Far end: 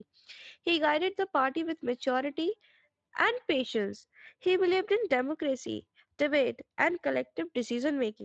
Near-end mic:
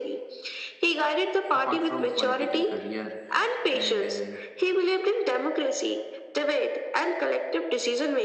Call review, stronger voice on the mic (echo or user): echo